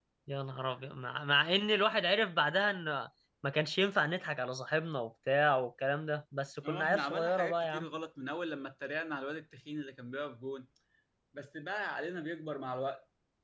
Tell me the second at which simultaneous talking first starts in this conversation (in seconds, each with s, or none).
6.6 s